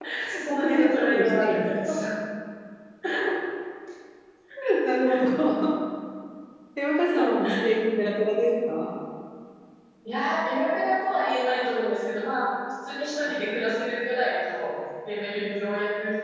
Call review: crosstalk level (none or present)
present